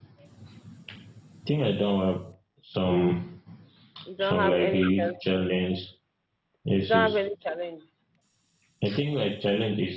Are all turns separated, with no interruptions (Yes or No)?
No